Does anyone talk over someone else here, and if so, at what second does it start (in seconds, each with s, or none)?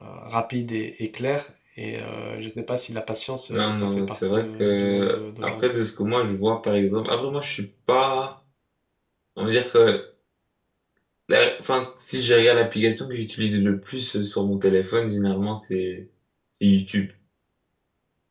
3.5 s